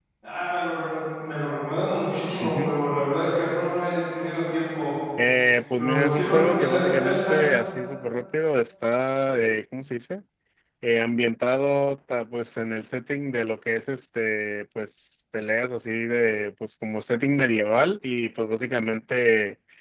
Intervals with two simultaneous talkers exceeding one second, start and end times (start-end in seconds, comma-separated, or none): 5.8-7.4